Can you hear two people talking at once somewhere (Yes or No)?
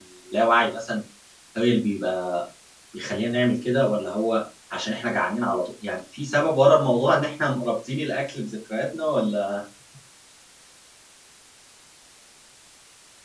No